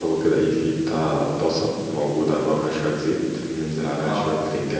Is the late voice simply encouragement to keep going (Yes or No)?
Yes